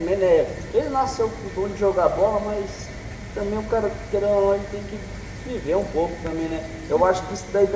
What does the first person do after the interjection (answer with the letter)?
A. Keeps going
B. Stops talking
A